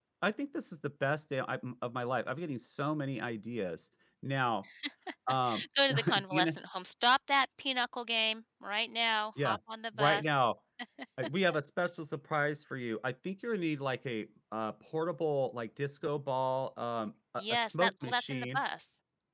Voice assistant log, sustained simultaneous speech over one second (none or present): present